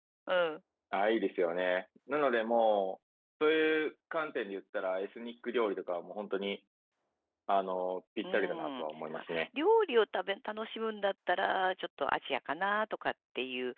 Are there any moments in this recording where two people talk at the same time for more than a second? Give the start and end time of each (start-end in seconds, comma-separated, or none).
8.2-9.5